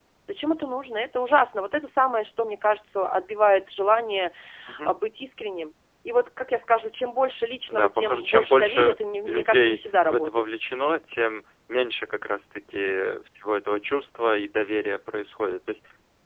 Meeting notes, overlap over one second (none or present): present